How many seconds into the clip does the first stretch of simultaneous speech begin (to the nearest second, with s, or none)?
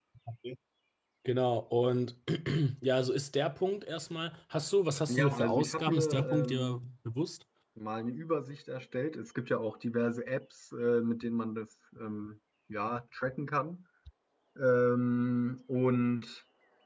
5 s